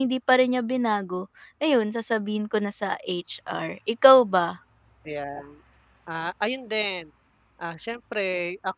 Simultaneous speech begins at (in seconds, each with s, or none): none